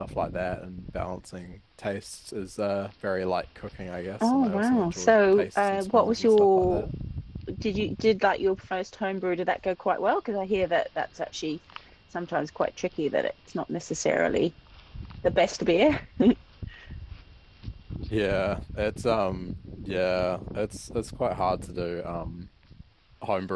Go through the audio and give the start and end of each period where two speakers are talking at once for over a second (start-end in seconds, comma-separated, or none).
4.2-6.8